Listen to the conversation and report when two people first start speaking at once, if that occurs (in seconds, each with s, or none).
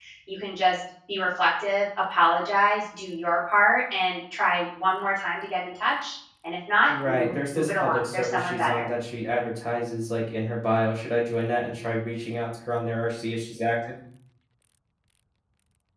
6.9 s